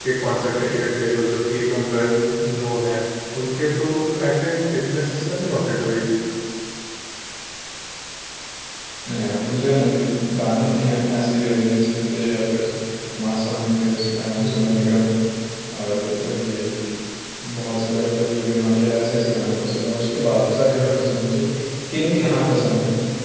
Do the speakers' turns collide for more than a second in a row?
No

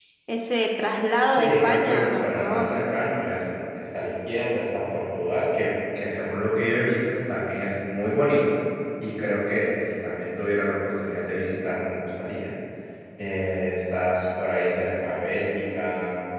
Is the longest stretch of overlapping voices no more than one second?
No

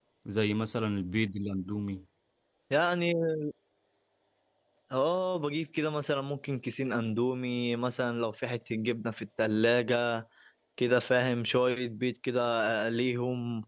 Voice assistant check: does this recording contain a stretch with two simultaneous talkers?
No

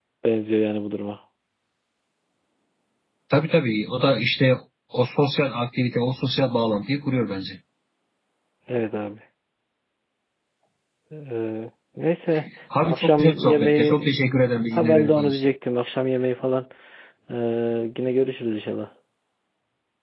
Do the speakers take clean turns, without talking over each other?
No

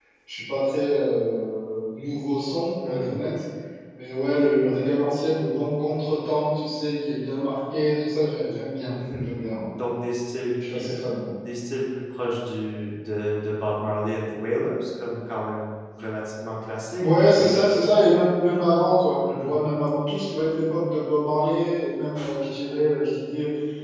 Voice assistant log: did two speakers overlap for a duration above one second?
No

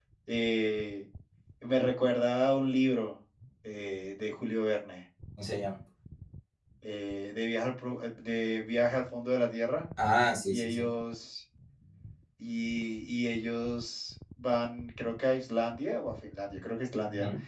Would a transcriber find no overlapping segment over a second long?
Yes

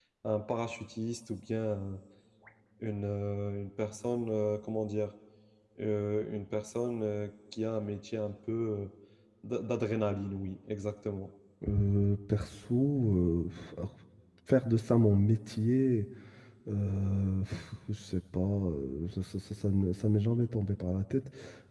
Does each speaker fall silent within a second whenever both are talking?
Yes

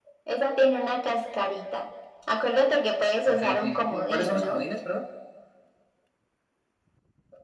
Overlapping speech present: Yes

